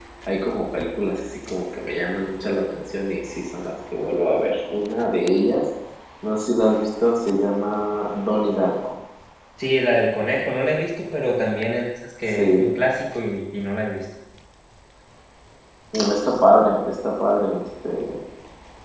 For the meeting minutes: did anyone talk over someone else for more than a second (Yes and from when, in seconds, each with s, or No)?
No